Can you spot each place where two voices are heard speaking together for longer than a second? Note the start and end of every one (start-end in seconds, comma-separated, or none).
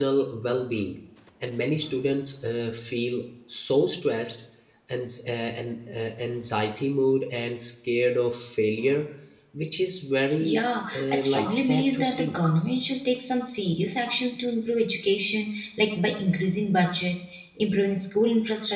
10.4-12.4